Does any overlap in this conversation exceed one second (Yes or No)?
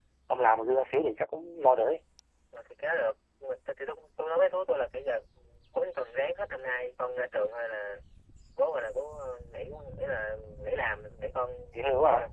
No